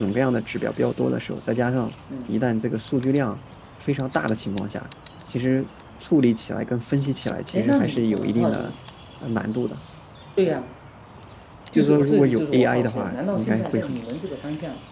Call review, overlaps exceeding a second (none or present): present